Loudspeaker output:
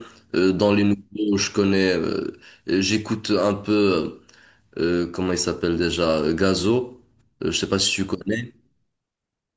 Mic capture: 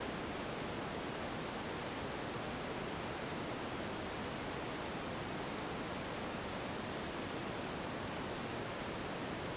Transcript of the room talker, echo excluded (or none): none